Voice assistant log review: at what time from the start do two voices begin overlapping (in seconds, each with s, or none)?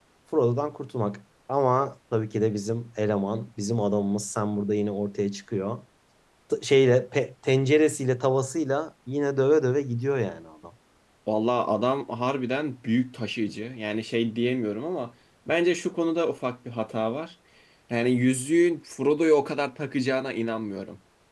none